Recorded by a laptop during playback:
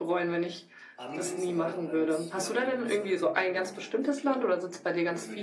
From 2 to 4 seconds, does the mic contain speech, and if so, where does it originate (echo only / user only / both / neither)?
both